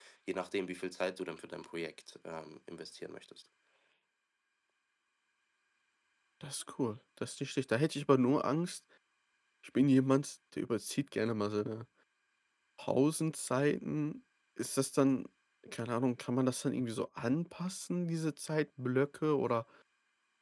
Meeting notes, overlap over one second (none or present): none